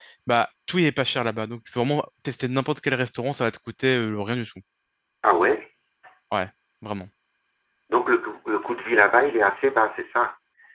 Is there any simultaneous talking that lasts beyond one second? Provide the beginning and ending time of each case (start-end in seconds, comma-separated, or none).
none